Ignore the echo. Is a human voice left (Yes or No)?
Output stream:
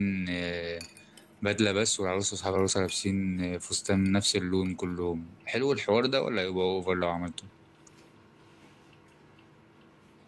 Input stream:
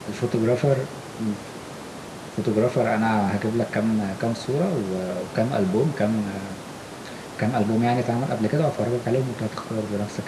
Yes